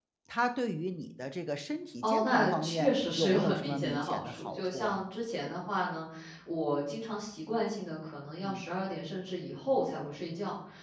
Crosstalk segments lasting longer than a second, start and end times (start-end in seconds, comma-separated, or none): 2.0-5.0